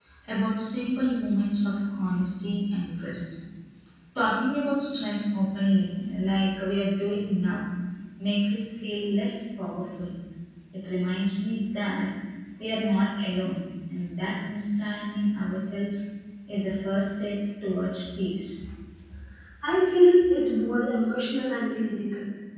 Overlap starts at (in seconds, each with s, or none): none